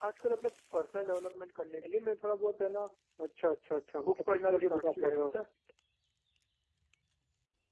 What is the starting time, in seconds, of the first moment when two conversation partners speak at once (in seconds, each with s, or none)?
4.1 s